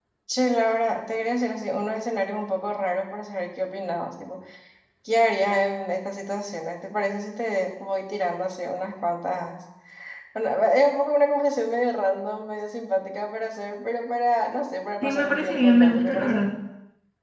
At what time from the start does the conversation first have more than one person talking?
15.0 s

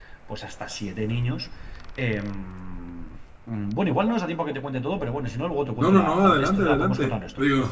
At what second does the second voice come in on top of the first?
5.8 s

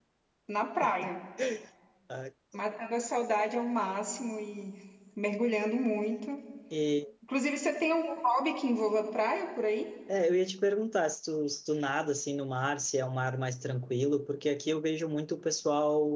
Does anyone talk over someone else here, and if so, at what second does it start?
none

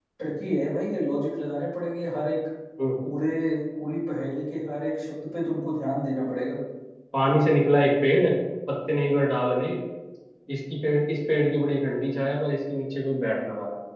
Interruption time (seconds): none

